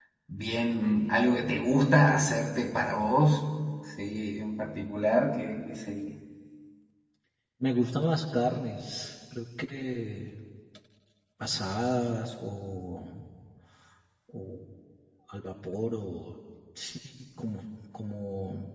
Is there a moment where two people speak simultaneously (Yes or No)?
No